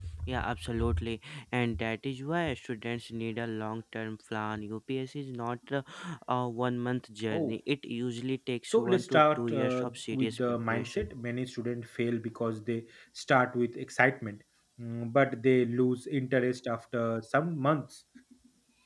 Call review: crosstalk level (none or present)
present